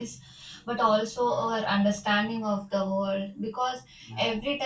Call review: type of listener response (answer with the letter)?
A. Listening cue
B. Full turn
A